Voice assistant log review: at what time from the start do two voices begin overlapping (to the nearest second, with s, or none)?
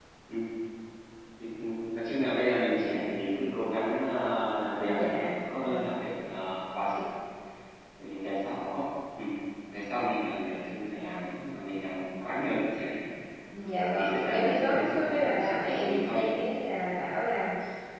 5 s